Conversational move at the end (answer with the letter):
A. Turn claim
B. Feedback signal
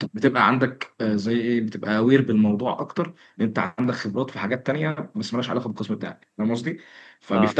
B